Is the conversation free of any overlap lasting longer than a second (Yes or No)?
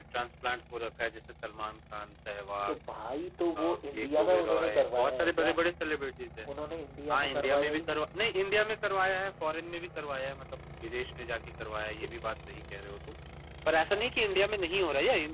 No